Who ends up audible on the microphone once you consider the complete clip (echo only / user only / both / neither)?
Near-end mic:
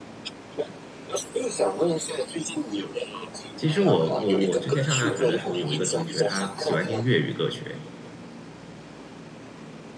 both